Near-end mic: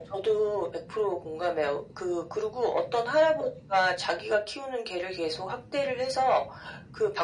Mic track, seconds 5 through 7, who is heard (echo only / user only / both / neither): echo only